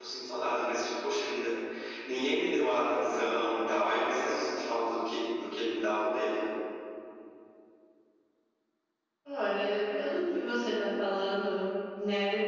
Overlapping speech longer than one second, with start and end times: none

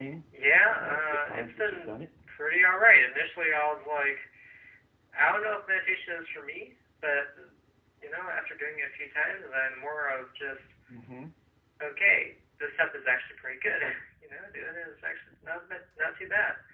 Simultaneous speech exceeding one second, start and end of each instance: 0.6-1.9

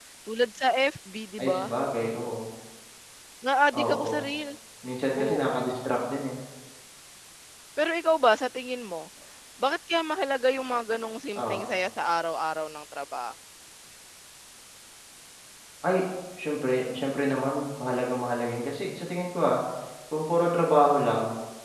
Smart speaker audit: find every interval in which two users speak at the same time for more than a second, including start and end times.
none

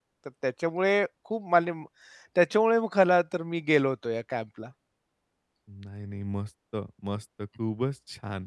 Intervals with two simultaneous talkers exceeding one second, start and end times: none

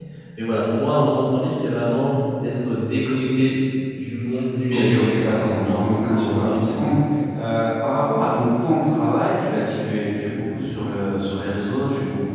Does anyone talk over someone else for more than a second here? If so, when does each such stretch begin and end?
4.7-6.9

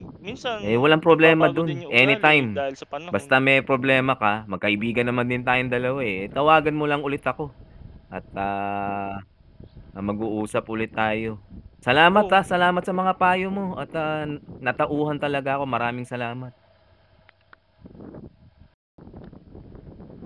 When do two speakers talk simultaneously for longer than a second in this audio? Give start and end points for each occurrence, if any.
1.1-2.6

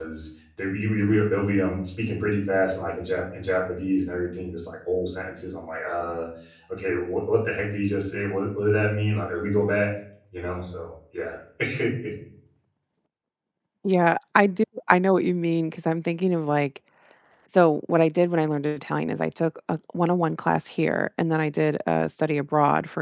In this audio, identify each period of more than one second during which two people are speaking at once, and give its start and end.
none

